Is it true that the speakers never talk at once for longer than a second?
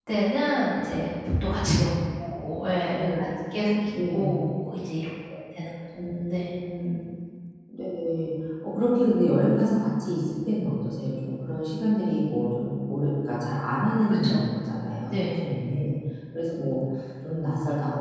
Yes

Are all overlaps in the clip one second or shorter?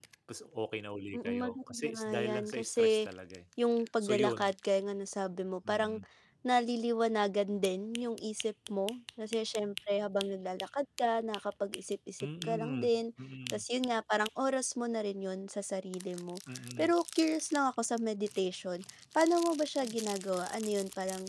No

